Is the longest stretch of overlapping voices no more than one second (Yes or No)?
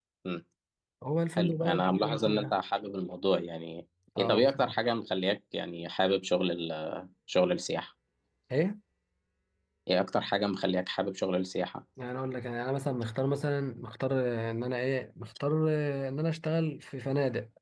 No